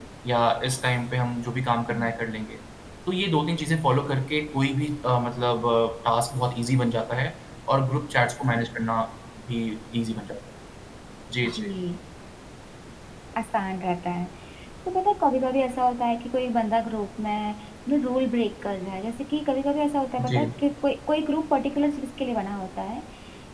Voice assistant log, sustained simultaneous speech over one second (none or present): none